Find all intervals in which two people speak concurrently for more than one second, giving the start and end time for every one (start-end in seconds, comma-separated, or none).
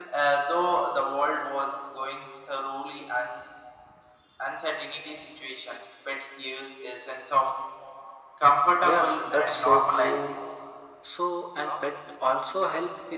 8.8-10.4